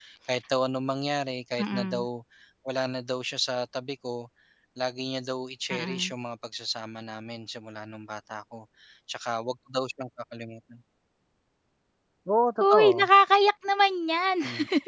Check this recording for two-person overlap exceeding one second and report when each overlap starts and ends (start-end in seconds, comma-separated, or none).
none